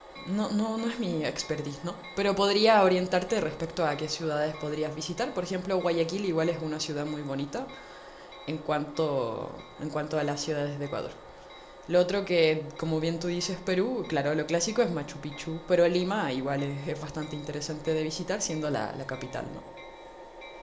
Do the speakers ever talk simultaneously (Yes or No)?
No